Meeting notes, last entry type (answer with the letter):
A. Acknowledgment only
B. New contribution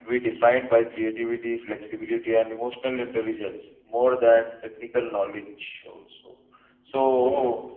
A